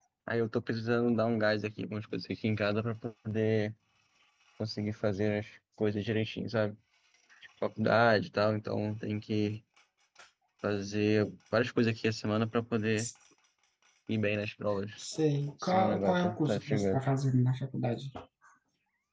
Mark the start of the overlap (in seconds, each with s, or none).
15.6 s